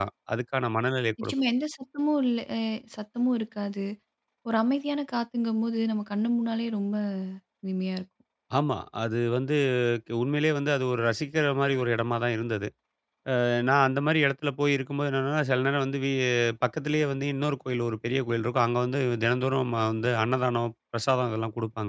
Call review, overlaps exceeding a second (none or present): none